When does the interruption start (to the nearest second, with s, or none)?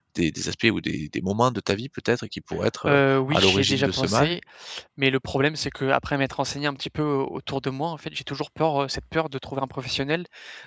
3 s